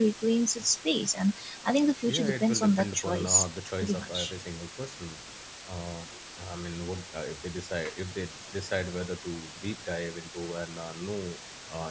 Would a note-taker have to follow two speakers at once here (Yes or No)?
Yes